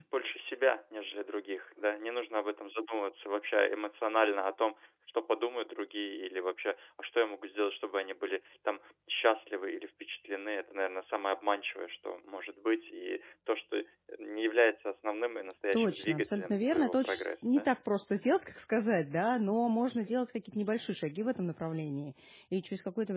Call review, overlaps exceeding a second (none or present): present